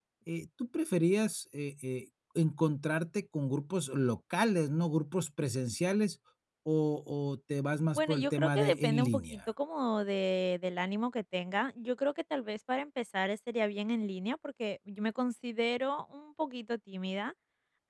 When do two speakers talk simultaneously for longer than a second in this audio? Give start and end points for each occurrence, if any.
8.0-9.4

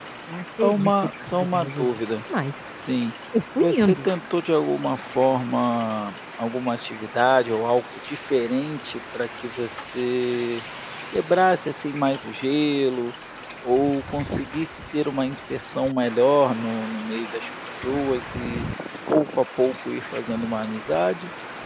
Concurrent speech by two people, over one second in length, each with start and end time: 0.6-2.0

